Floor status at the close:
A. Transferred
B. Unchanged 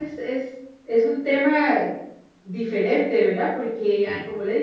B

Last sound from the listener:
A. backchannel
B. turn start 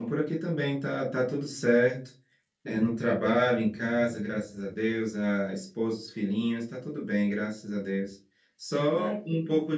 A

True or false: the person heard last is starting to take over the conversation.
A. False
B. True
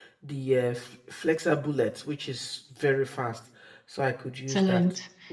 B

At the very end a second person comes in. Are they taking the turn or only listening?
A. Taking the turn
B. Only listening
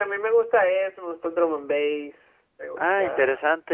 A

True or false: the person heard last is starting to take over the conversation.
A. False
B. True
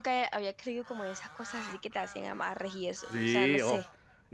B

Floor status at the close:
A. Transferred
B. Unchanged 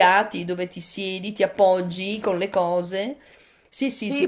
A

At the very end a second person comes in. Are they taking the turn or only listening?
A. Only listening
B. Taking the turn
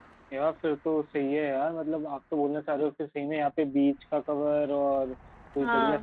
A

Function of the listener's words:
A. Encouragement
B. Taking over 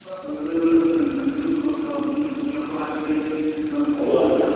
A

